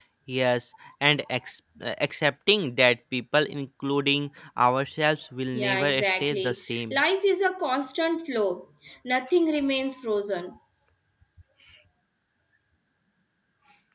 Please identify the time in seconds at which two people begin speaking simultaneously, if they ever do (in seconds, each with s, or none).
5.5 s